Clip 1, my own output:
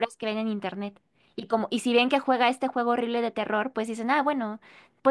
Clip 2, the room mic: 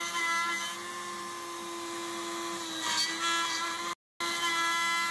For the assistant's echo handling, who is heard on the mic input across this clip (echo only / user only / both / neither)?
neither